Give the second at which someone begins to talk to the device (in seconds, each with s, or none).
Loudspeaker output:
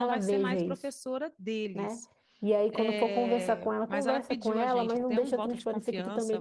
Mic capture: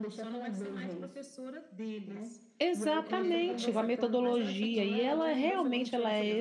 2.6 s